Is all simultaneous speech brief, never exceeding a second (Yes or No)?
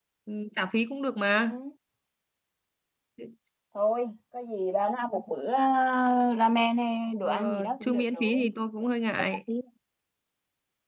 No